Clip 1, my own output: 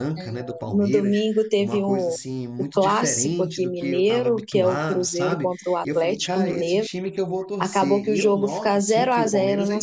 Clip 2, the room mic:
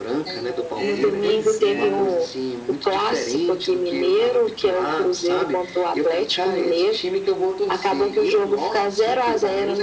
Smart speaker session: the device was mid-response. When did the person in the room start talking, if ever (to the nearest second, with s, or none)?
1 s